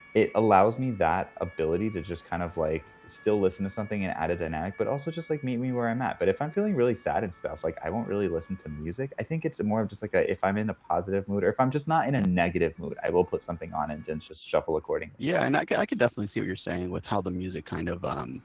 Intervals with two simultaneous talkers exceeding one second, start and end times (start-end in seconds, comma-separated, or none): none